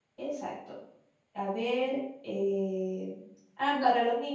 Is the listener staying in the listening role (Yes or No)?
Yes